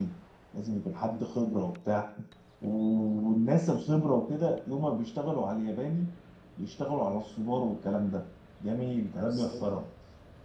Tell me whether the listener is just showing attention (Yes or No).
Yes